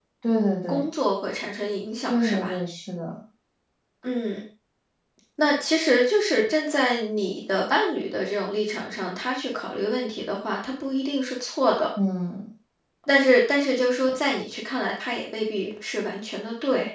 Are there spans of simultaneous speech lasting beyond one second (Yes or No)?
No